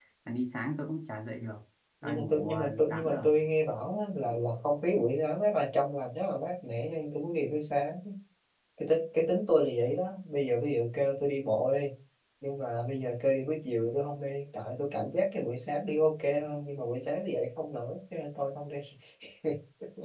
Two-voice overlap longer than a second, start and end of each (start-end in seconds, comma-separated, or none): 2.0-3.3